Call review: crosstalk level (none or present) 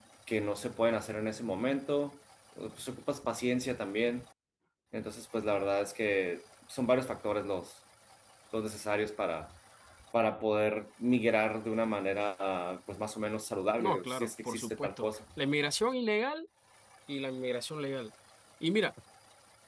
present